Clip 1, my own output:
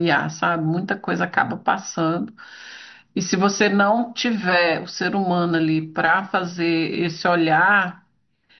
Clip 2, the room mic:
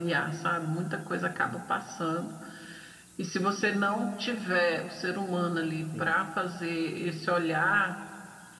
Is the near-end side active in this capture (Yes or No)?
Yes